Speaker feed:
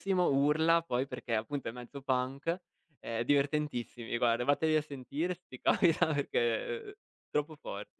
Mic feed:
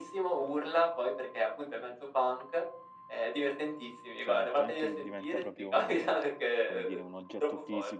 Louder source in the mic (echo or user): echo